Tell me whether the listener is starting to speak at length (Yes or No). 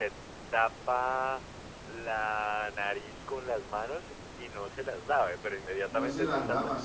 Yes